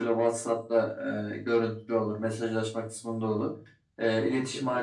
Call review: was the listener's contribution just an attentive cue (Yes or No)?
Yes